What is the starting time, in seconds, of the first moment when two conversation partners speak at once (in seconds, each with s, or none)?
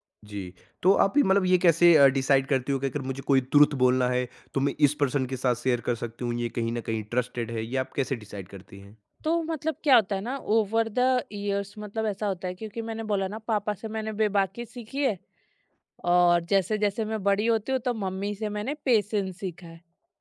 none